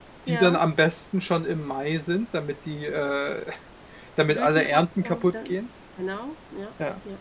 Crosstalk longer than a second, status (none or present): present